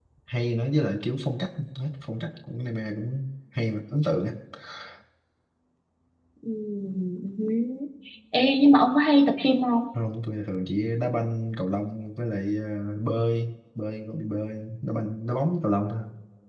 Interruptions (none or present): none